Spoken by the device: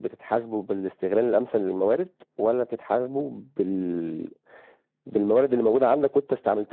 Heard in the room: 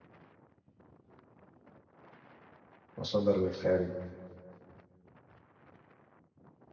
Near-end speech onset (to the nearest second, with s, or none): 3 s